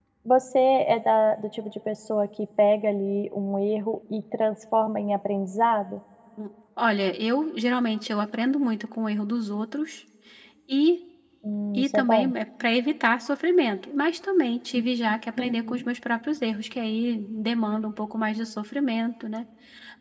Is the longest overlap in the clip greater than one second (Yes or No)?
No